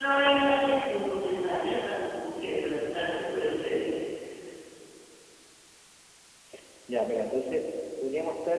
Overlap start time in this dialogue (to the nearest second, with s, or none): none